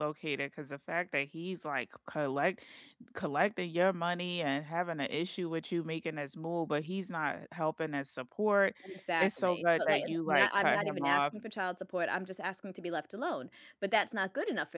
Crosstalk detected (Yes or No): Yes